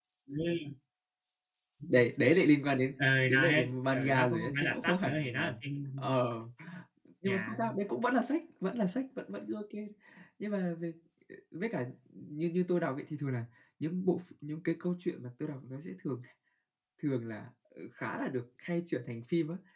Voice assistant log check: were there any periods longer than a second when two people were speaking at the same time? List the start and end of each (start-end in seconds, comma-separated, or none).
3.3-5.4